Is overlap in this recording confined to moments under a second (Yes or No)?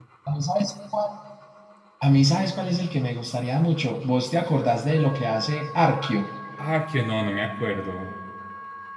Yes